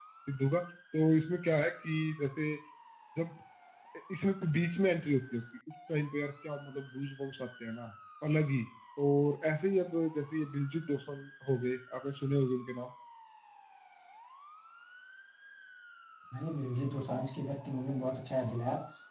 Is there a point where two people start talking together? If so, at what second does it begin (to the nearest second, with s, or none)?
none